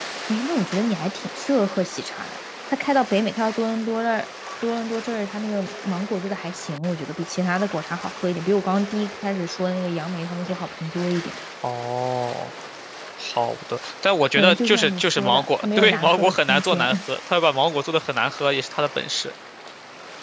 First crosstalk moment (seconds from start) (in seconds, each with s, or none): 14.2 s